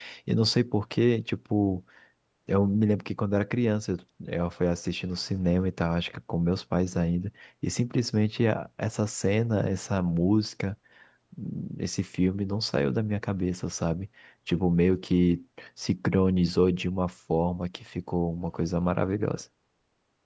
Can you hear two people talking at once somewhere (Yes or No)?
No